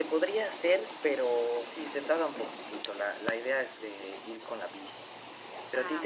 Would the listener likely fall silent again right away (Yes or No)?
Yes